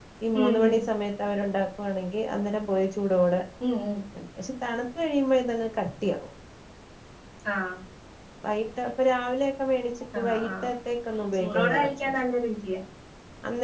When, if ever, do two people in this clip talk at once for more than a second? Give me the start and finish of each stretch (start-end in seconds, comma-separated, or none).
none